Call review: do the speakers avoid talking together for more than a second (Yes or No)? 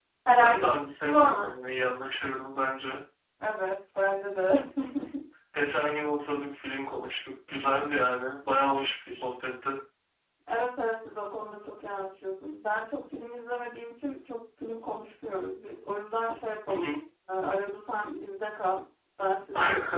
No